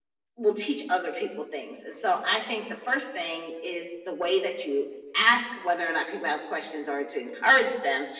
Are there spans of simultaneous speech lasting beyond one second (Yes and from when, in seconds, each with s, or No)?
No